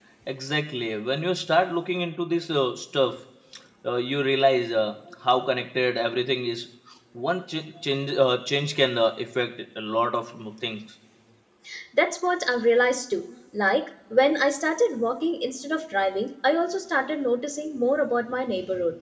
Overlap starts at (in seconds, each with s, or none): none